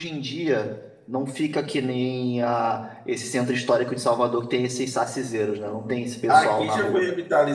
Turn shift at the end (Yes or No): Yes